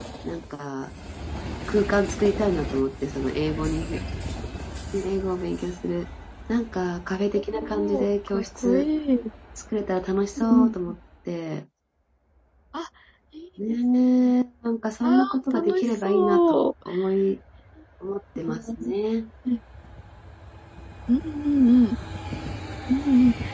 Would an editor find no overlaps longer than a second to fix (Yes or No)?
No